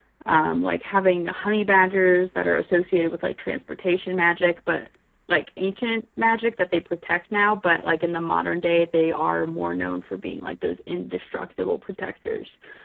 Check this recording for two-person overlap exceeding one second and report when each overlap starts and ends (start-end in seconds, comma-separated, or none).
none